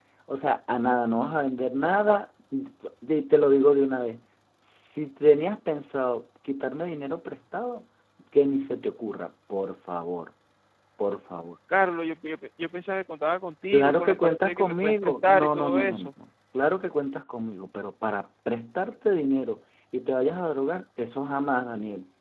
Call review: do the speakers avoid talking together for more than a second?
No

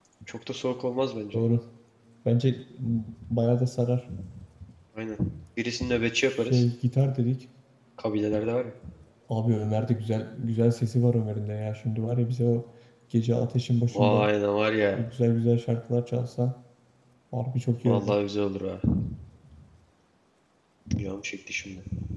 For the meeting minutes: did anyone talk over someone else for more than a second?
No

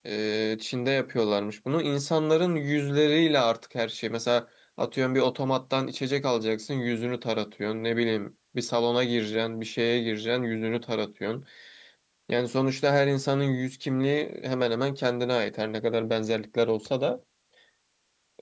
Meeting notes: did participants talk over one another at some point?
No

